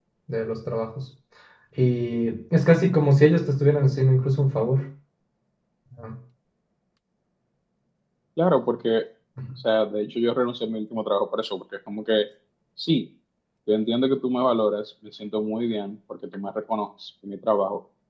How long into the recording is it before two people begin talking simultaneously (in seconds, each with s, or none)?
none